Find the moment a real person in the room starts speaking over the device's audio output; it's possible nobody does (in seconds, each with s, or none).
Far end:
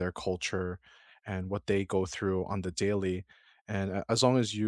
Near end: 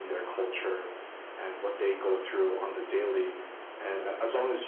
none